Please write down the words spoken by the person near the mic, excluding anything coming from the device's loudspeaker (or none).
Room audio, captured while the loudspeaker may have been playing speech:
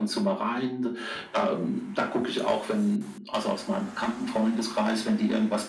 none